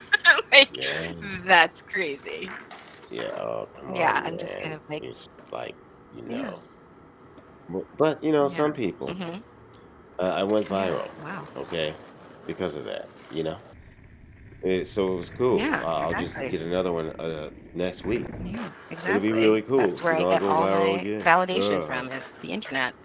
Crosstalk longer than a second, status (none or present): present